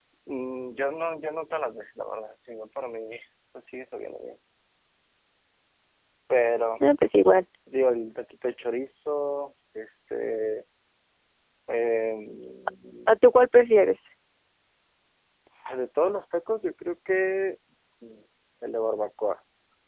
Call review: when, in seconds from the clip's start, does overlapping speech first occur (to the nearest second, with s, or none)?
none